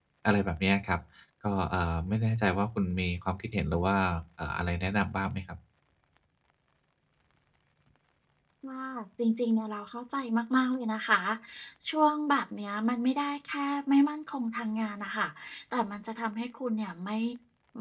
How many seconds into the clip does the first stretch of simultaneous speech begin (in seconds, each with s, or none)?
none